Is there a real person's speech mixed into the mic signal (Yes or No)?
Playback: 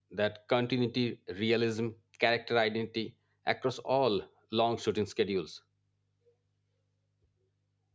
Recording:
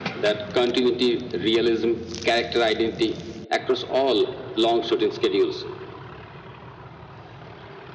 No